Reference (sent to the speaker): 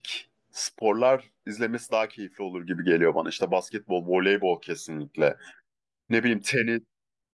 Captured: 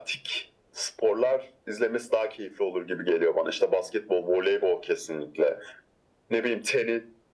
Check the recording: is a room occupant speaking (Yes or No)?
No